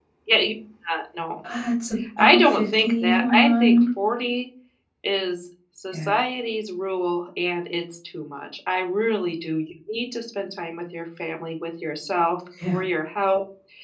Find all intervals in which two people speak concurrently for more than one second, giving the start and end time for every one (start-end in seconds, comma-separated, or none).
2.2-3.8